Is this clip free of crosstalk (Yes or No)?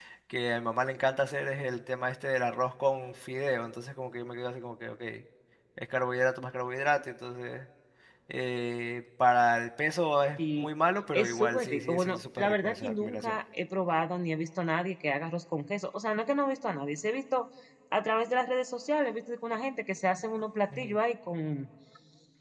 No